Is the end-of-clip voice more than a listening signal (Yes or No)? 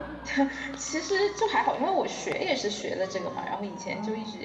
No